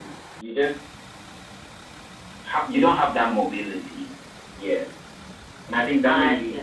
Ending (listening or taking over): listening